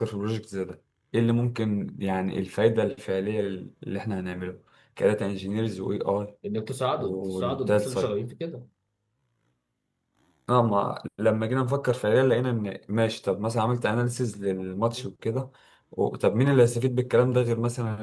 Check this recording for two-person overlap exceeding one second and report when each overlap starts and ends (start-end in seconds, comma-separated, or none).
6.9-8.2